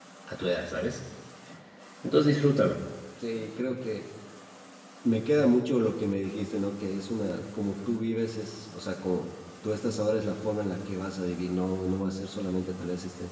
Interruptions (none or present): none